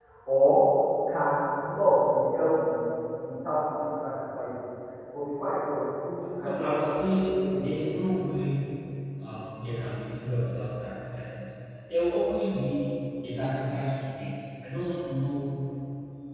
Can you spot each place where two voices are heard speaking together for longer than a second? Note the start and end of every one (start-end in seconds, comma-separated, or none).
6.4-8.1